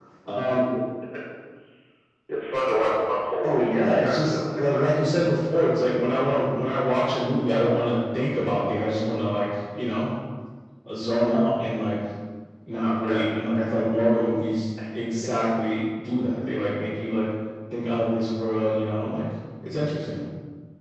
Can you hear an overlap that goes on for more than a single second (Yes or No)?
Yes